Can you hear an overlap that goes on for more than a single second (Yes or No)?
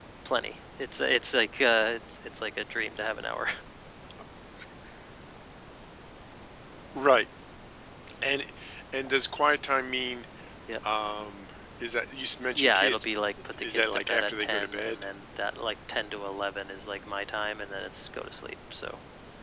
Yes